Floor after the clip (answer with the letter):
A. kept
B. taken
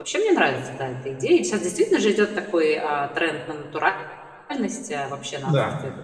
A